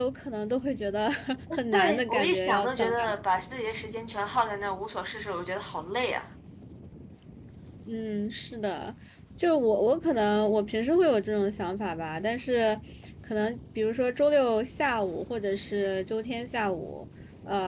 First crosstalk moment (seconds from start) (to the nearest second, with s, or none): 2 s